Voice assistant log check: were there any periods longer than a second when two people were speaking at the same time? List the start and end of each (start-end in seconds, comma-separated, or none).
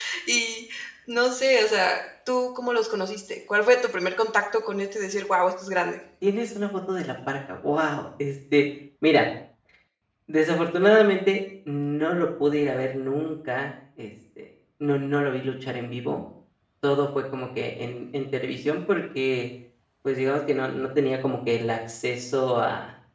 none